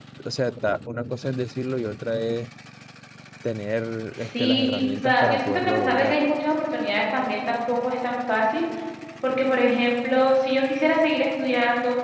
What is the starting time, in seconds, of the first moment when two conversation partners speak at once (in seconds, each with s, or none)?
4.4 s